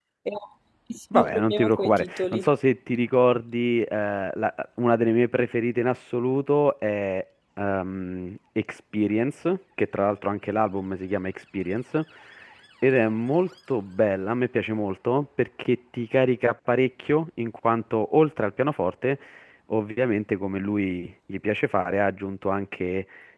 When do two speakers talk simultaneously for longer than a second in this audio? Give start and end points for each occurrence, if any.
1.1-2.5

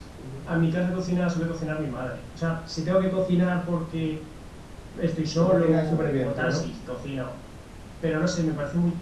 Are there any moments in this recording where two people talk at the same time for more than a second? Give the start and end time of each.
5.4-6.7

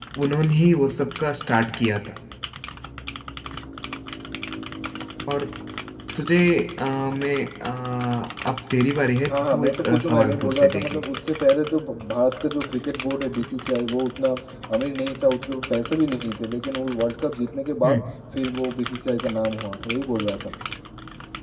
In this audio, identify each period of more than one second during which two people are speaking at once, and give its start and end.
9.3-11.0

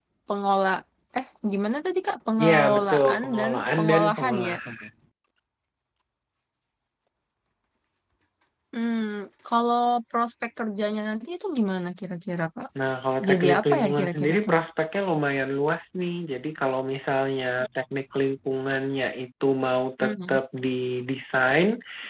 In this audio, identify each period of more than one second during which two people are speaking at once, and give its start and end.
2.4-4.5, 13.3-14.5

